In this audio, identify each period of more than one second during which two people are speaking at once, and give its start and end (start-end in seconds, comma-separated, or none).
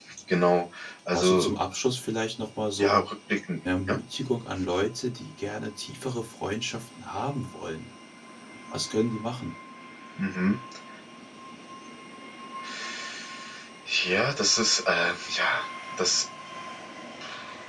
none